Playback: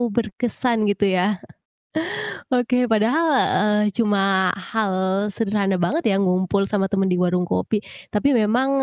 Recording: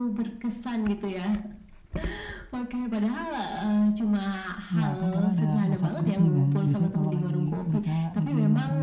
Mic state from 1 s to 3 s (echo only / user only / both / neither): echo only